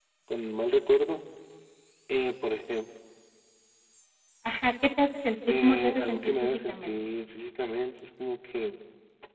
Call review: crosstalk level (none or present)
present